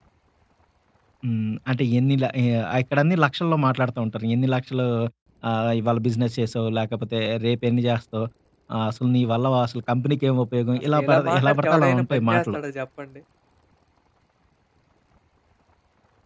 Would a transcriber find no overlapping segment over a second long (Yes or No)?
No